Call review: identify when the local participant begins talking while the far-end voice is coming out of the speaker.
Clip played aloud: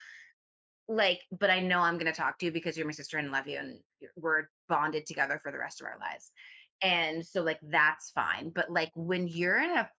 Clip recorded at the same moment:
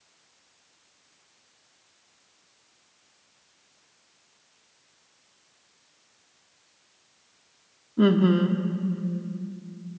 8.0 s

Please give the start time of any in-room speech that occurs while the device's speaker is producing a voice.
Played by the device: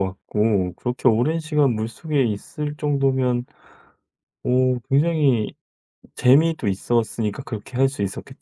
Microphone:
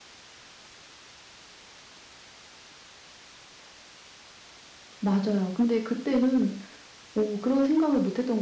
5.0 s

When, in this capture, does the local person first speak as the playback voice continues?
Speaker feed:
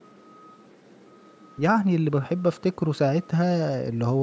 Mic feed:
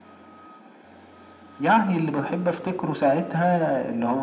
none

